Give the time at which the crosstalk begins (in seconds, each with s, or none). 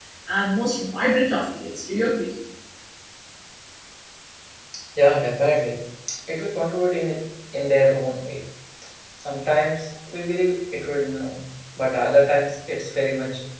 none